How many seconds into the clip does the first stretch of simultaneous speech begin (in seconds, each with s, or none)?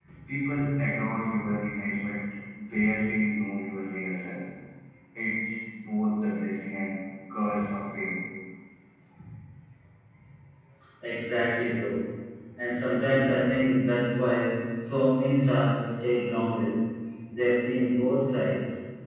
none